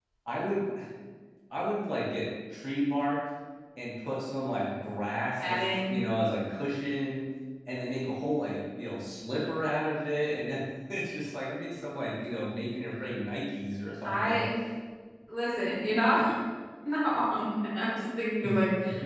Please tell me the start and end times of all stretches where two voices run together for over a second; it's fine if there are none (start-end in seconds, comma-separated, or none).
none